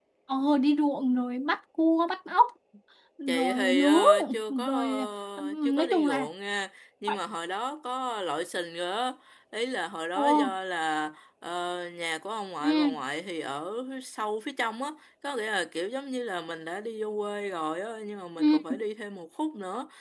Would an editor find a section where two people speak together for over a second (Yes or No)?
Yes